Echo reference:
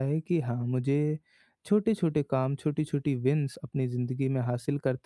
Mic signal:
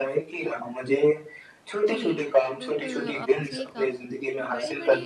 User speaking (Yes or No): Yes